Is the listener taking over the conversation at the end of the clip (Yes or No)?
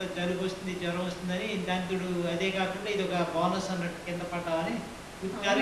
Yes